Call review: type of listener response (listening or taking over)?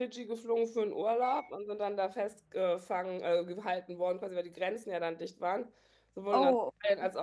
listening